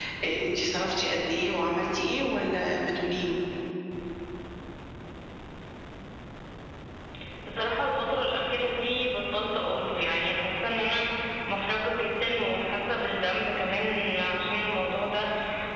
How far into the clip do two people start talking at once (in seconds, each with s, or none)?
none